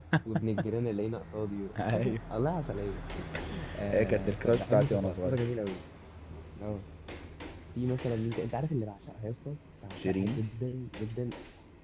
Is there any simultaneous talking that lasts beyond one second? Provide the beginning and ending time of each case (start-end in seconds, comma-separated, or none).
3.9-5.5